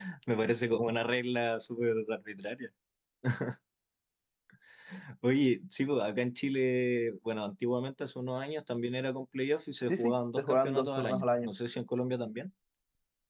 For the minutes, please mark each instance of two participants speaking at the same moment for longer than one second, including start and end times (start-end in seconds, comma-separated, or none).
9.9-11.5